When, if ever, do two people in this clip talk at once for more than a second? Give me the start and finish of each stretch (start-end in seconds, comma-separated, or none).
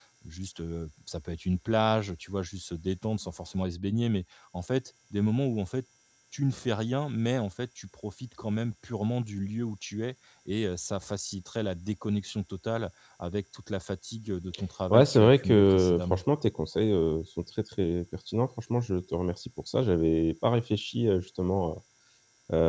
14.9-16.2